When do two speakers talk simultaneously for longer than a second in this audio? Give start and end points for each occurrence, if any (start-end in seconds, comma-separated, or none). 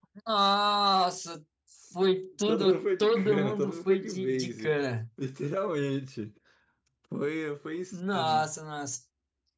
2.5-4.7